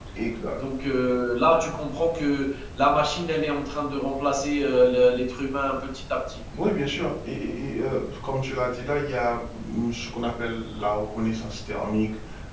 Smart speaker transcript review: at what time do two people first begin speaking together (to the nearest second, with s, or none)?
none